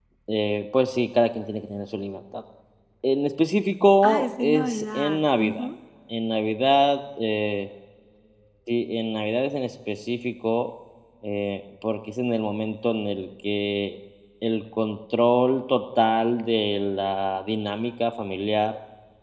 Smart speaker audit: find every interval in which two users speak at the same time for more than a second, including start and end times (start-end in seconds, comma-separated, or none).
4.0-5.7